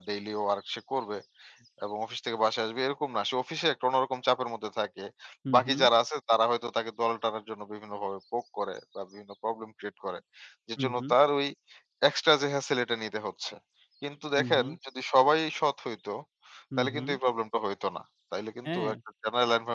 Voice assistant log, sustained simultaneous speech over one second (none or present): none